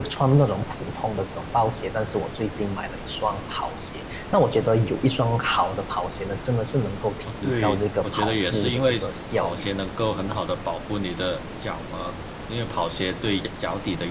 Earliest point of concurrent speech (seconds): 7 s

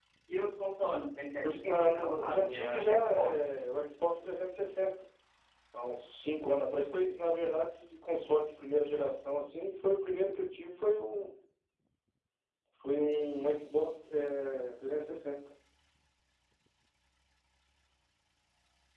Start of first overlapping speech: 1 s

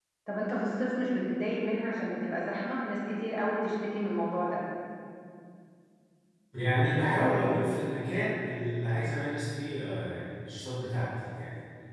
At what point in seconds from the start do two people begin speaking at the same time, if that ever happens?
none

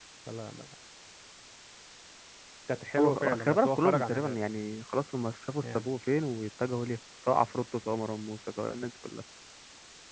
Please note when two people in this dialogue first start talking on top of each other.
3 s

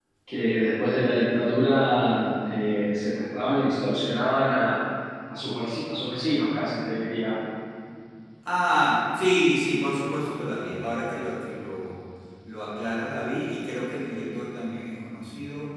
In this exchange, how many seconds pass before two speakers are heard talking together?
none

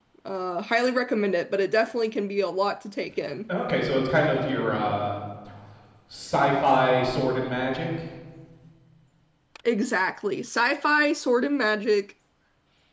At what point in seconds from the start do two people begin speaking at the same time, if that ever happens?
none

